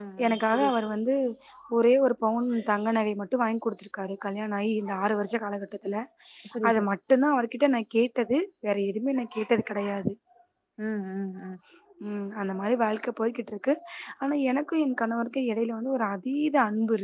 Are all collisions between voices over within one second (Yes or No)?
Yes